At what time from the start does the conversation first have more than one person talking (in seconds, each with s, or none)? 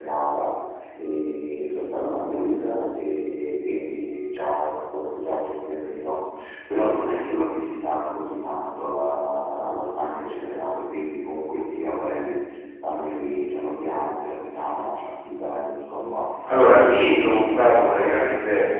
16.8 s